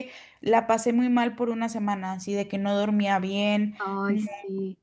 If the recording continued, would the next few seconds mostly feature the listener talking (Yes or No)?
No